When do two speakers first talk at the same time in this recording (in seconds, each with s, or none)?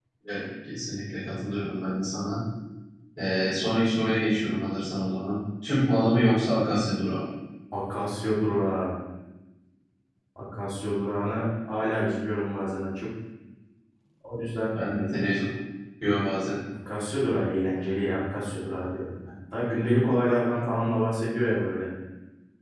none